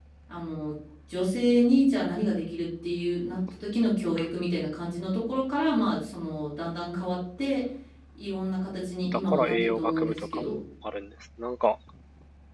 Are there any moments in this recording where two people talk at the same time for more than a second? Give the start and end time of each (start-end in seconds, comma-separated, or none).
9.1-10.6